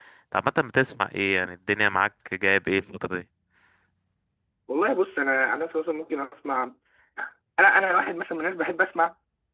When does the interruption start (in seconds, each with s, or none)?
none